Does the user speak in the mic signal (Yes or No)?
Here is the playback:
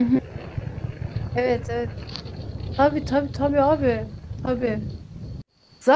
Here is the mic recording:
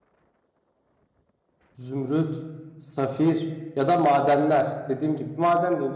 Yes